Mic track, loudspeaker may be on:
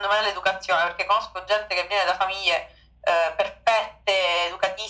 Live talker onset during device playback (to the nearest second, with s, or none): none